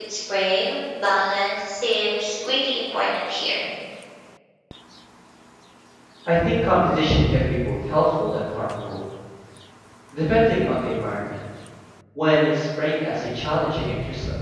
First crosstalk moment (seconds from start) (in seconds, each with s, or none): none